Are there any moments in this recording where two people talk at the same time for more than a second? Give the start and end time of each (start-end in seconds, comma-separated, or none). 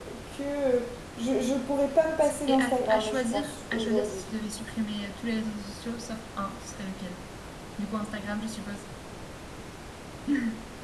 2.2-4.3